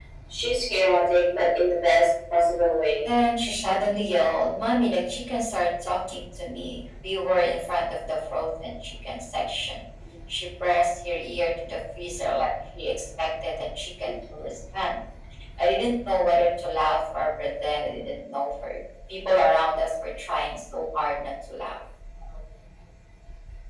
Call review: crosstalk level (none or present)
none